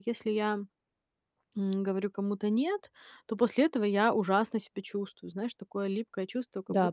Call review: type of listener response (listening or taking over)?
listening